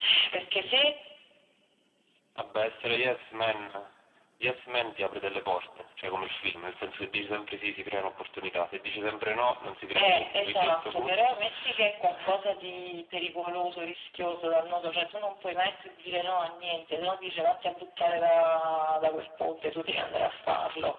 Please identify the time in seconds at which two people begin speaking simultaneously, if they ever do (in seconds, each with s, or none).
10.0 s